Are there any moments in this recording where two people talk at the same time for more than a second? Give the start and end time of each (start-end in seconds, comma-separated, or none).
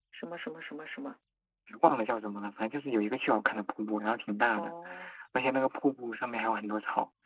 none